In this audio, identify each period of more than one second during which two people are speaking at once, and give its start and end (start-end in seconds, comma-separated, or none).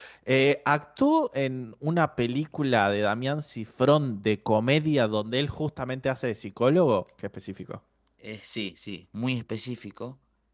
none